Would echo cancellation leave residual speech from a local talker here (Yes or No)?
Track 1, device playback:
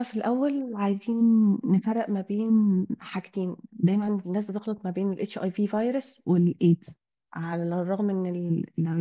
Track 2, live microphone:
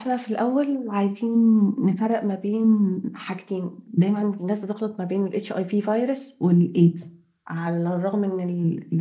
No